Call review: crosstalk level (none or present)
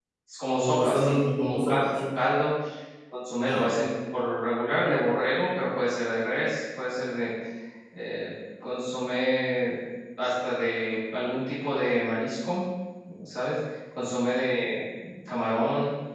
present